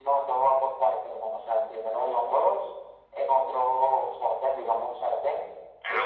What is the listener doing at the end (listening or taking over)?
listening